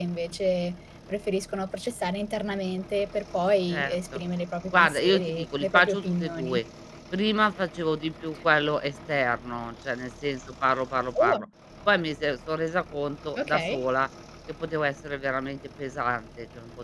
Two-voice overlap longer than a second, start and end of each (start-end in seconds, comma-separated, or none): 4.8-6.6